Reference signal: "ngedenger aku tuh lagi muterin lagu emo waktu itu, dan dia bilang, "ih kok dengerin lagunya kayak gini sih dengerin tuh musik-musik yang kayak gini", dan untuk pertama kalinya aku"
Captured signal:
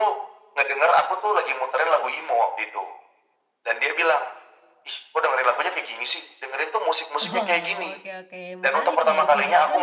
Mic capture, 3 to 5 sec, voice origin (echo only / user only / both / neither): echo only